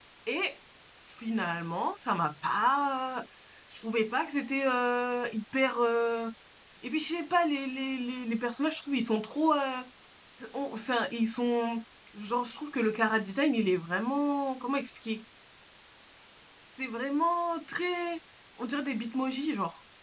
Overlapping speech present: No

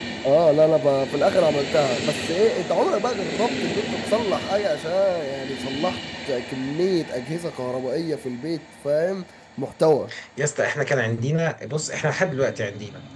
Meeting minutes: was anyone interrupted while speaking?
No

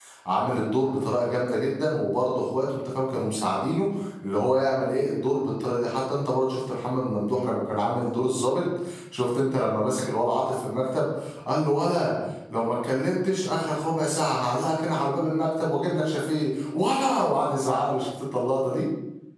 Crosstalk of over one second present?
No

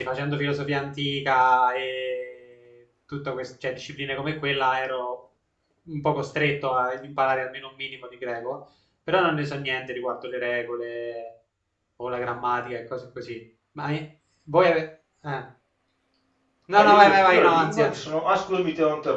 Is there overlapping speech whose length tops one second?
Yes, from 16.8 s

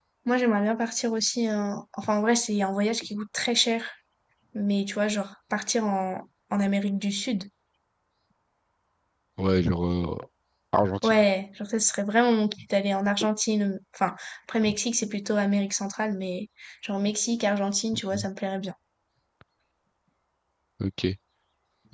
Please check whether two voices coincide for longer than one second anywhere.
No

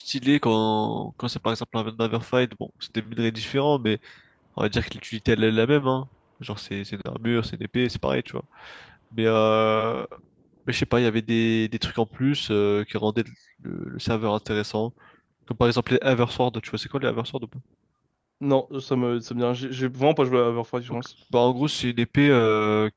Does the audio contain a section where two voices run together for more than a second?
No

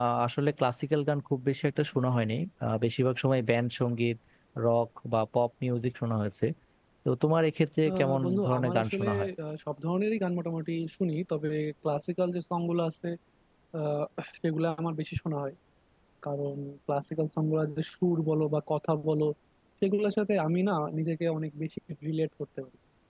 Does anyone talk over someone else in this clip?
Yes, from 7.9 s

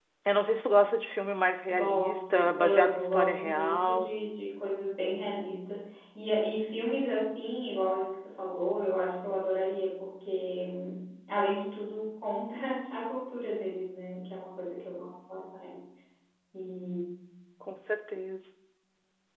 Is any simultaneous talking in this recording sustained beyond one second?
Yes, from 1.7 s

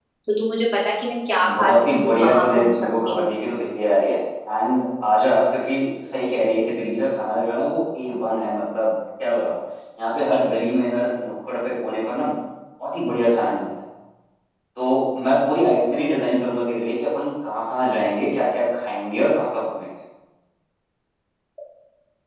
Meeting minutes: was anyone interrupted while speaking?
Yes, from 1.4 s

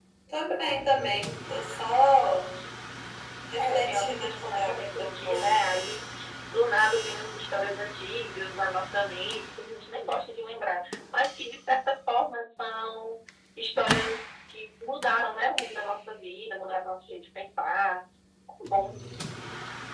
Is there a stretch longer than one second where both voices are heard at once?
Yes, from 3.6 s

